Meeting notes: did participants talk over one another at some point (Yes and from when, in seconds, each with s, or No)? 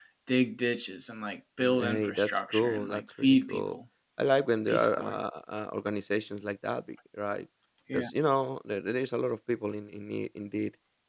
Yes, from 1.6 s